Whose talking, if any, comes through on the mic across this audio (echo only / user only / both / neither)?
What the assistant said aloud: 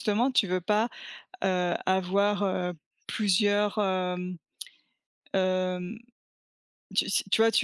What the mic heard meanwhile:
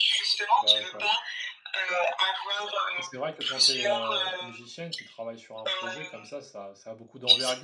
both